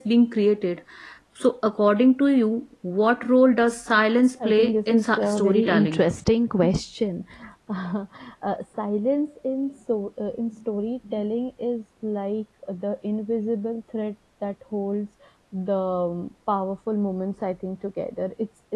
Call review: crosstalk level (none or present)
present